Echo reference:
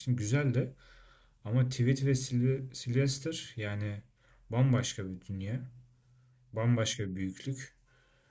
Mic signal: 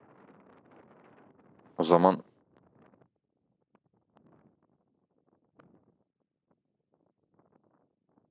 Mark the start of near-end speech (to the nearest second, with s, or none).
2 s